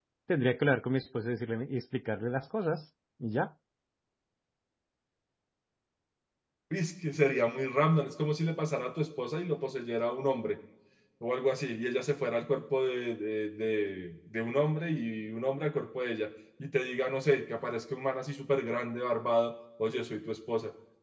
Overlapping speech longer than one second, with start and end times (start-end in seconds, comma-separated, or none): none